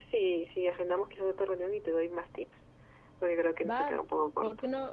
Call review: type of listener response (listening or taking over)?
taking over